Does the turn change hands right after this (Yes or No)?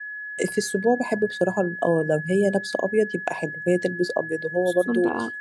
No